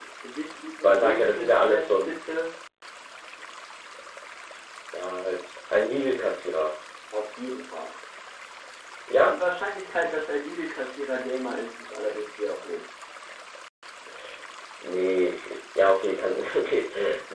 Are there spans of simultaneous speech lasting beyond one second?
Yes, from 0.8 s

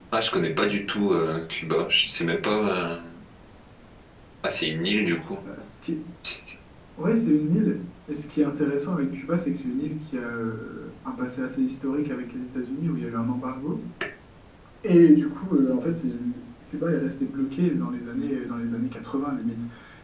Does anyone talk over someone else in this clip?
No

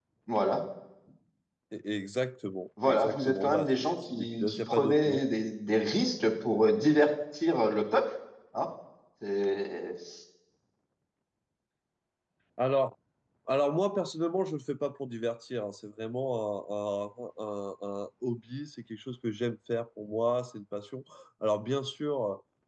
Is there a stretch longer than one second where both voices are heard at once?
Yes, from 2.8 s

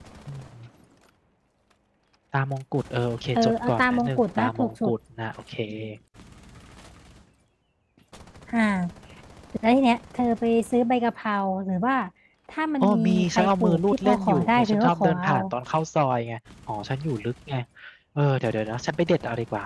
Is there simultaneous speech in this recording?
Yes, from 3.4 s

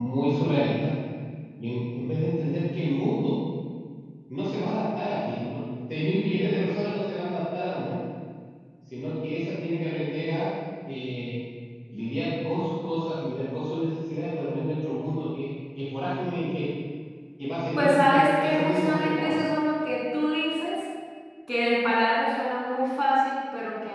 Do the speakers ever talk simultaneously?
Yes, from 17.8 s

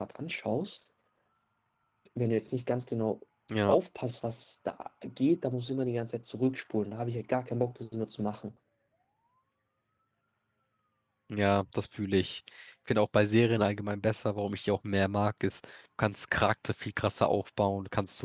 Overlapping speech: No

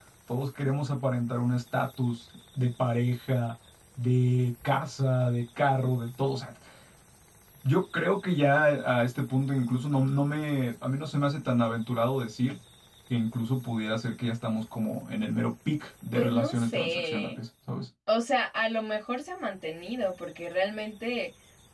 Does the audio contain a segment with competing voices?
Yes, from 16.1 s

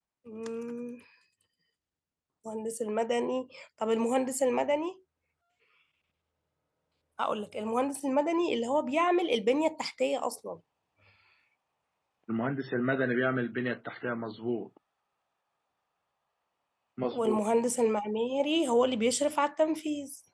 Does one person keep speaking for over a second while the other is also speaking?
No

